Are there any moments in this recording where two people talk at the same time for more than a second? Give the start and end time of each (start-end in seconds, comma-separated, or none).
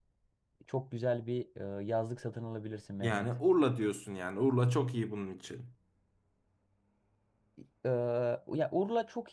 none